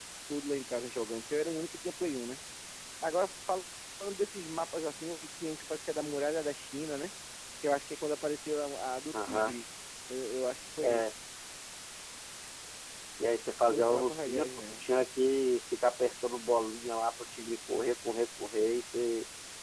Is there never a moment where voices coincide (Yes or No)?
No